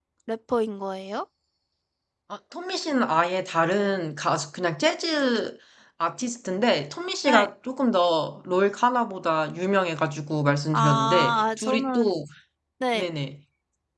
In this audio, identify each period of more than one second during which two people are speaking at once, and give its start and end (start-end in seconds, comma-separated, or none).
10.7-12.1